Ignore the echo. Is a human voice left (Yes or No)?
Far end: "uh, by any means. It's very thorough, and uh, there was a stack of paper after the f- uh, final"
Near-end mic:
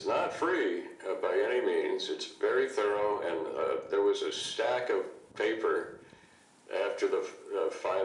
No